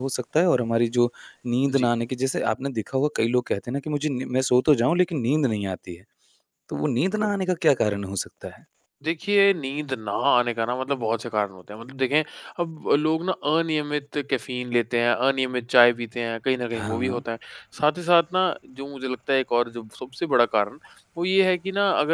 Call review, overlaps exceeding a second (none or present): none